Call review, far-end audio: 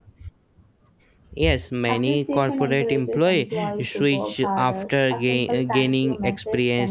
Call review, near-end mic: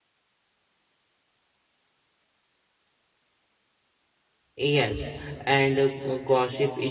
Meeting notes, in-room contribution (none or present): present